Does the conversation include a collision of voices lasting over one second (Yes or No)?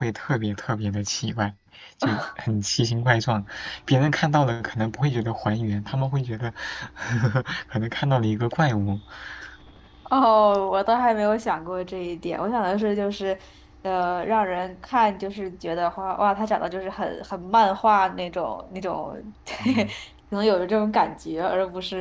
No